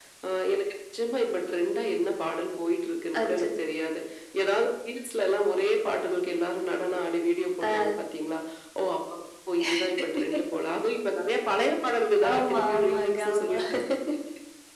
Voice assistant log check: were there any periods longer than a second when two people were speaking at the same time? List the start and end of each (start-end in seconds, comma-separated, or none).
12.3-13.6